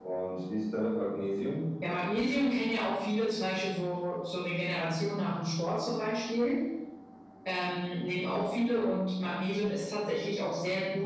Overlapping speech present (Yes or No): No